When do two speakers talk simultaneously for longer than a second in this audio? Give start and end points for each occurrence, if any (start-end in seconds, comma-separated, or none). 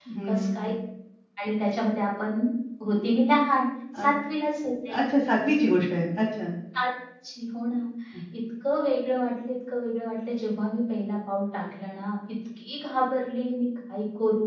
none